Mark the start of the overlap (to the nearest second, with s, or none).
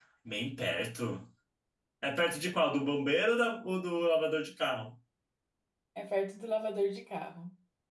none